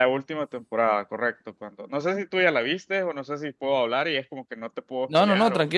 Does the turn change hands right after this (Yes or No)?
Yes